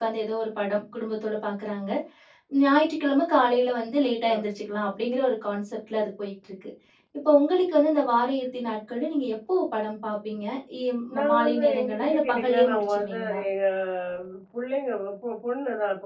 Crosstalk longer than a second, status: present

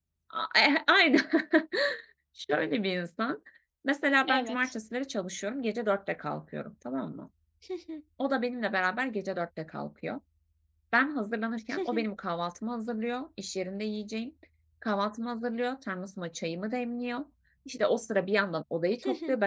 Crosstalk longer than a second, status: none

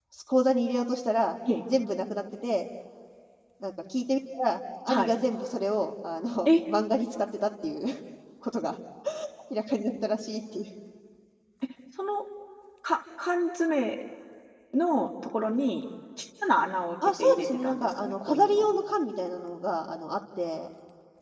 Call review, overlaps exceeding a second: present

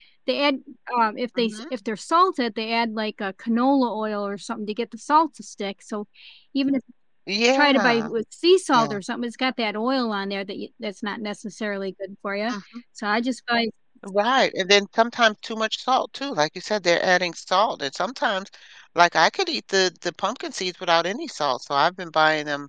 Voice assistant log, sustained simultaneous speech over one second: none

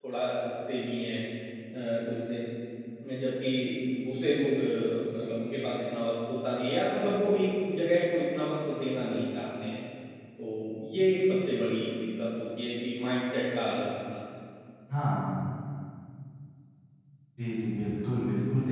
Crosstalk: none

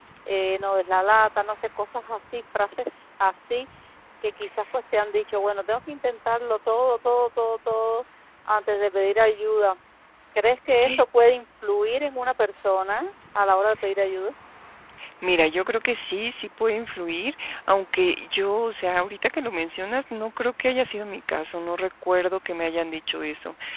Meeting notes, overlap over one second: none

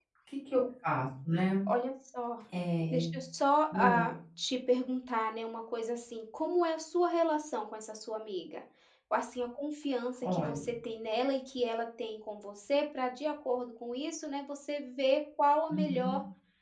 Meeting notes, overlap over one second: none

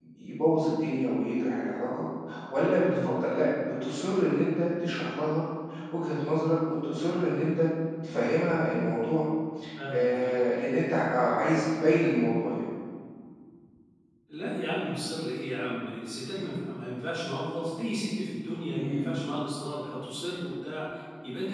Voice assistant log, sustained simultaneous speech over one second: none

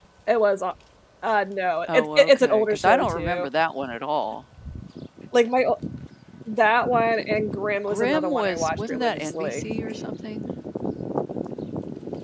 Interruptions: present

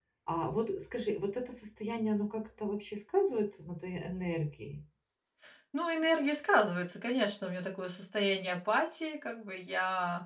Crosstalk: none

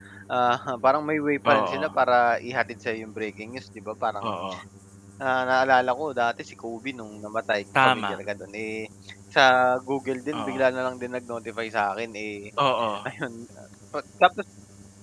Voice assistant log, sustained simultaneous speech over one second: none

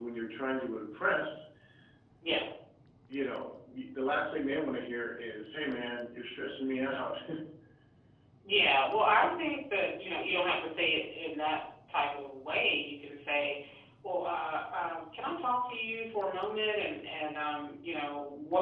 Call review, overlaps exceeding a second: none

